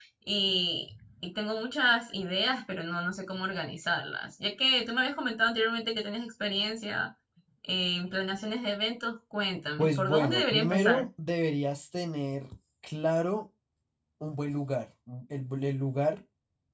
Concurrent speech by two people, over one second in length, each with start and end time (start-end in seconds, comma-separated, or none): 9.8-11.0